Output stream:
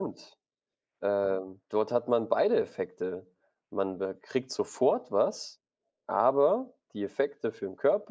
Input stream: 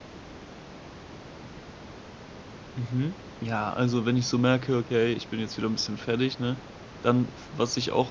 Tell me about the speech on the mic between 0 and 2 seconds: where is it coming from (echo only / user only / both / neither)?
neither